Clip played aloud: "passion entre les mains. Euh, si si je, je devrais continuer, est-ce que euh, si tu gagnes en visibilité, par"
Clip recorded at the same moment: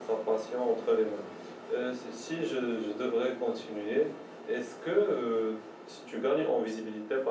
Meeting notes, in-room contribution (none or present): none